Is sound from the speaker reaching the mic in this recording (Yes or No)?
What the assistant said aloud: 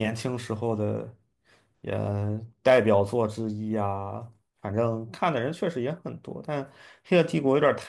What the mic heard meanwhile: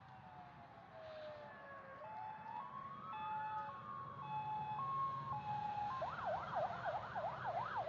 No